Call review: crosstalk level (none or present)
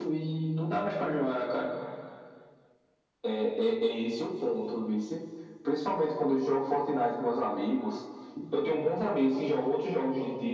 none